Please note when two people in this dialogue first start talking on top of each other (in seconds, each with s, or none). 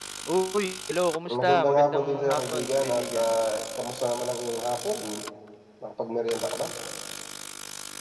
1.3 s